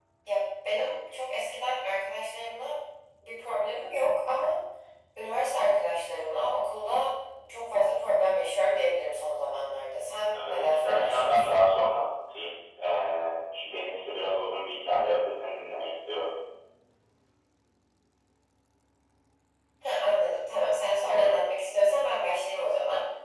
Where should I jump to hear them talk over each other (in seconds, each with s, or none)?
10.4 s